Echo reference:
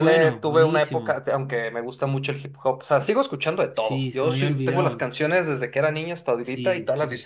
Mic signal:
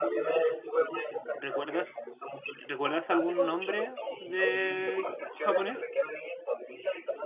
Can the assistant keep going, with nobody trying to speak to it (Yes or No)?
No